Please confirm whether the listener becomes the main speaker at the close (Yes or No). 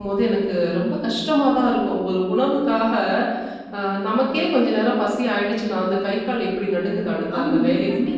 No